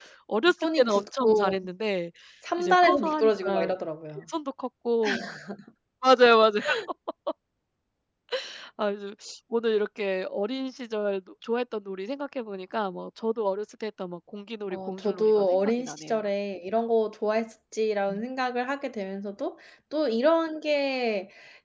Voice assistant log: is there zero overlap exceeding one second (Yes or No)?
No